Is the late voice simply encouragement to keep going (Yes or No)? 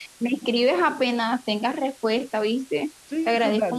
No